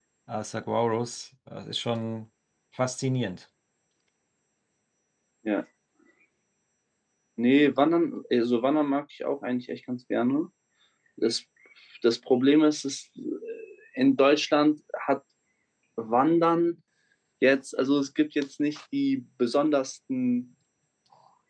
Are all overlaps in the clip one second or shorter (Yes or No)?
Yes